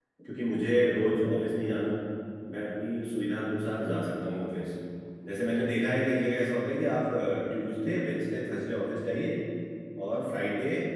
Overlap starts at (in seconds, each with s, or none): none